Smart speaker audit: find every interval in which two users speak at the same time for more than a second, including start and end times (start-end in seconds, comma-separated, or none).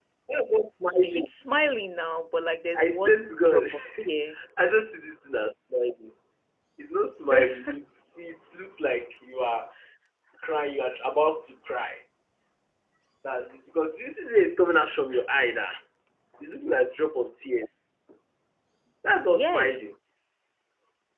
2.8-4.1